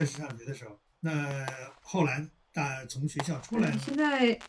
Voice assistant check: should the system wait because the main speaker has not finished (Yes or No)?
No